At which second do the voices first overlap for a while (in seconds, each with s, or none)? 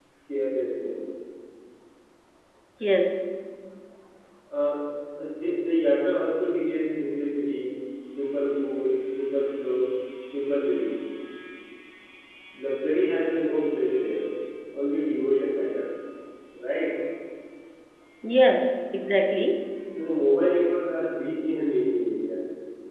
none